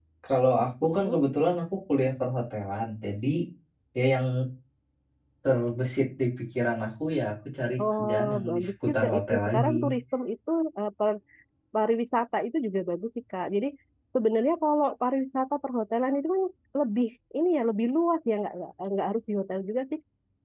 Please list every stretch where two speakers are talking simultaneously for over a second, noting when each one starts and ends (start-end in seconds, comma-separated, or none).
8.0-9.7